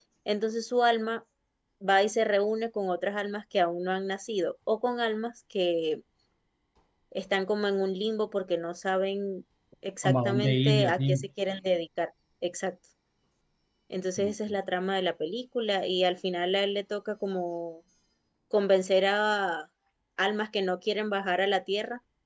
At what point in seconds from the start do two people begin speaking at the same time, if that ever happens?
10 s

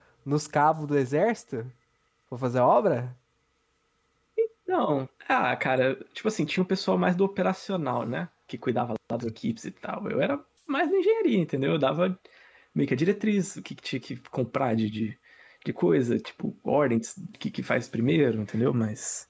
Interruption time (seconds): none

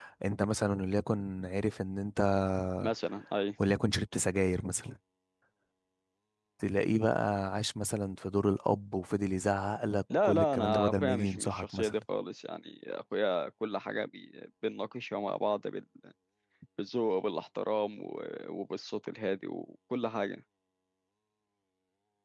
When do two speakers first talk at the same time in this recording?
10 s

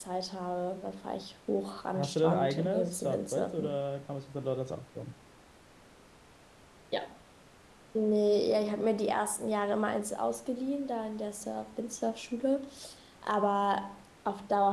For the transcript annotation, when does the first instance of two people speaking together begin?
2 s

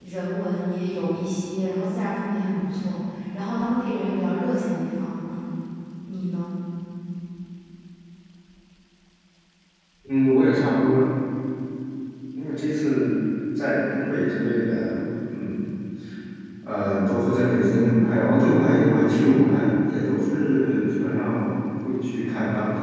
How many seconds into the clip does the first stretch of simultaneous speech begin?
none

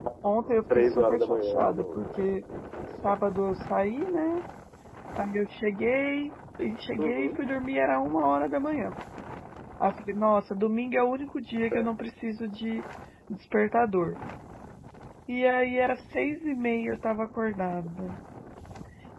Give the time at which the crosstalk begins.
1 s

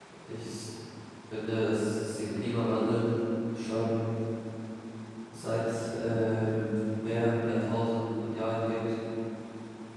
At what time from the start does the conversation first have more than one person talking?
none

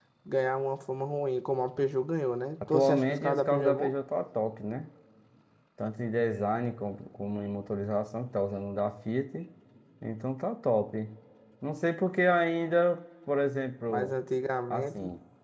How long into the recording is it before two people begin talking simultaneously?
3 s

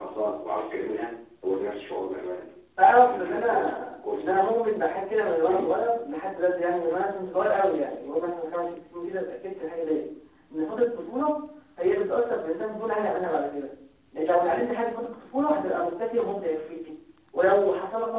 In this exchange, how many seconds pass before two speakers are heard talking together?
3 s

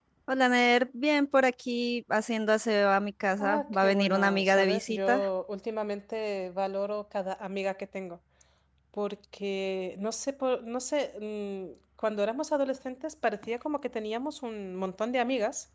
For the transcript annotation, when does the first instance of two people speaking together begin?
3 s

